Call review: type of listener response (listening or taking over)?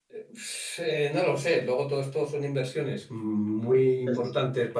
listening